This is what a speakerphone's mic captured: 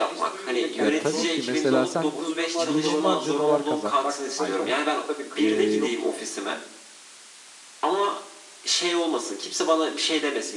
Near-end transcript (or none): Ya tabii ki mesela sen milyonlarca dolar kazan ayda. Ee,